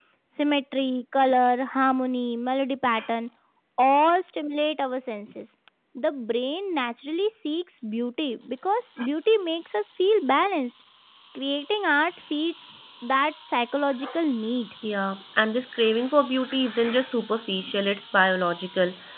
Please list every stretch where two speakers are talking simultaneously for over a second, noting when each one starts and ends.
none

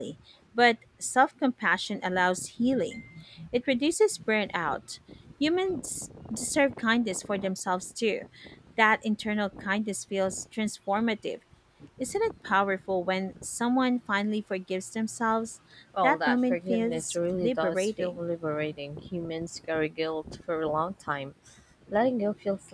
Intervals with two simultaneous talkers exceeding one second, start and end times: 16.0-18.2

